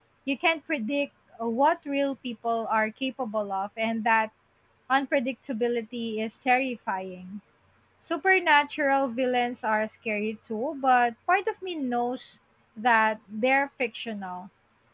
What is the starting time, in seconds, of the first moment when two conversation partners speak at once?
none

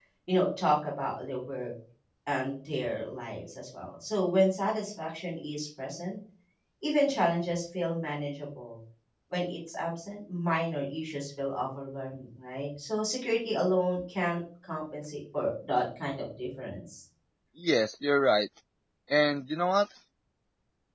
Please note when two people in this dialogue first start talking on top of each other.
none

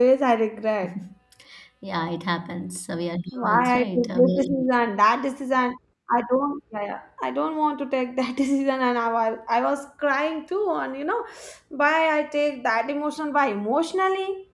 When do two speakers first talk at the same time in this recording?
3.3 s

